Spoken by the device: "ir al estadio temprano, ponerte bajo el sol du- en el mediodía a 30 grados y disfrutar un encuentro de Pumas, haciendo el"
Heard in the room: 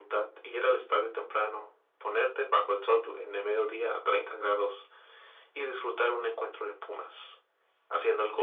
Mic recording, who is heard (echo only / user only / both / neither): echo only